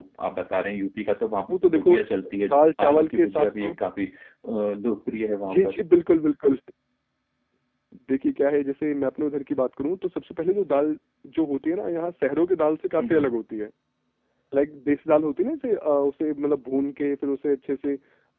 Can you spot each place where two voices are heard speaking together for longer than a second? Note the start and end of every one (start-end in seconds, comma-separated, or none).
2.5-3.7